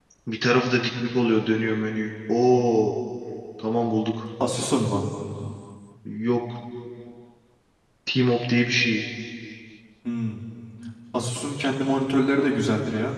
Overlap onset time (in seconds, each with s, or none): none